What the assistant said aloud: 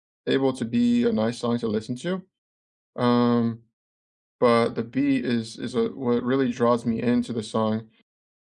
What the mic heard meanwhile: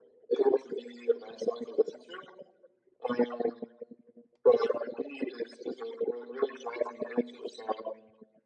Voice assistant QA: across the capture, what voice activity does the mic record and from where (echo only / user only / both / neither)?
echo only